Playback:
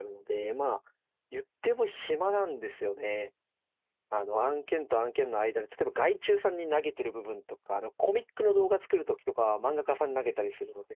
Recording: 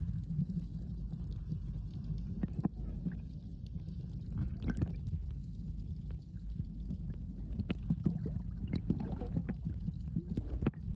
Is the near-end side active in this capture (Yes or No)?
No